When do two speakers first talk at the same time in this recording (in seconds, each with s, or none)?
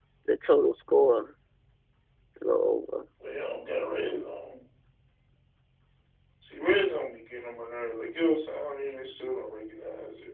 none